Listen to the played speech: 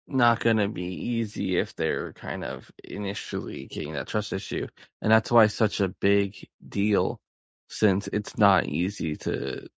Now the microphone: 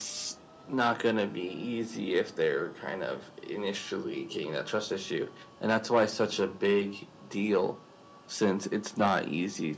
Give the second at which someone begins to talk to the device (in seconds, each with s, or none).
none